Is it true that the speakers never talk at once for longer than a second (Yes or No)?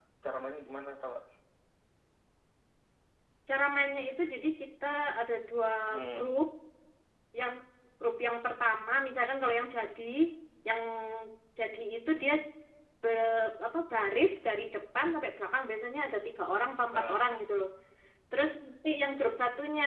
Yes